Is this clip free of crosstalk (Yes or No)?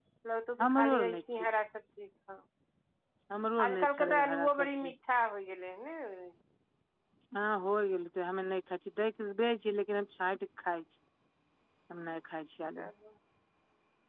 No